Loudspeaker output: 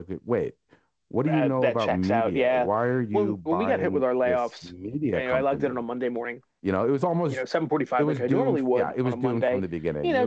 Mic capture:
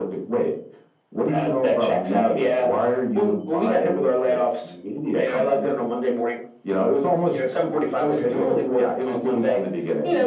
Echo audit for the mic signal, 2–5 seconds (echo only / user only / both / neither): echo only